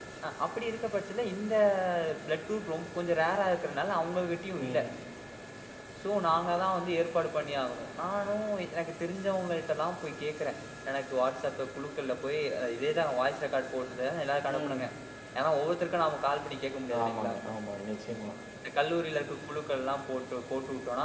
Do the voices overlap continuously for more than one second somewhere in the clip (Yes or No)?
No